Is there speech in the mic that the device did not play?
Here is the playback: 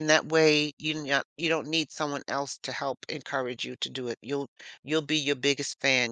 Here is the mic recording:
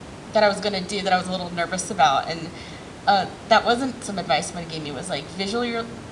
Yes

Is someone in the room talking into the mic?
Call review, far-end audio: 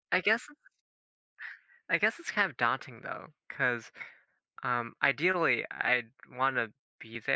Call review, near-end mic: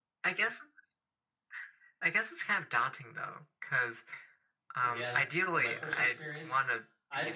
Yes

